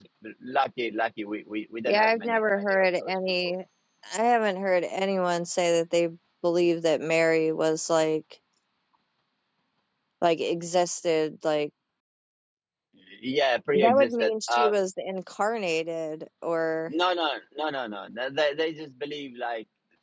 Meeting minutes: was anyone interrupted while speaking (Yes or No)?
Yes